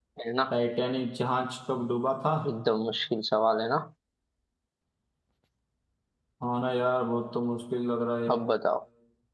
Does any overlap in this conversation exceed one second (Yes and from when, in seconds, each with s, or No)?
No